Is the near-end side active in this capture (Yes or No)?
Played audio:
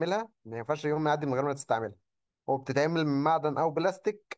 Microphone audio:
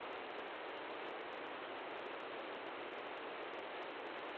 No